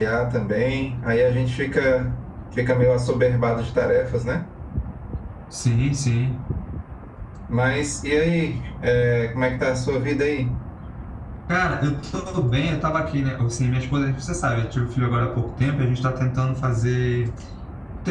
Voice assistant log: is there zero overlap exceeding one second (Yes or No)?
Yes